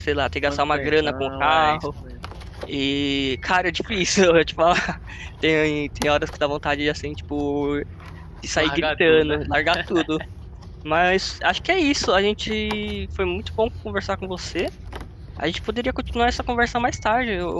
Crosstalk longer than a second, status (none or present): present